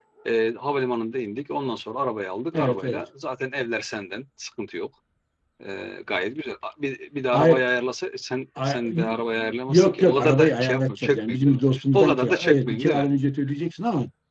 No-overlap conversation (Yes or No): No